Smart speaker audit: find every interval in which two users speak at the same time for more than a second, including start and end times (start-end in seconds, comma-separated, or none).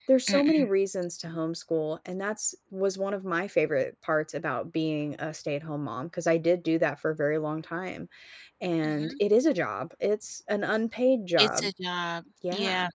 none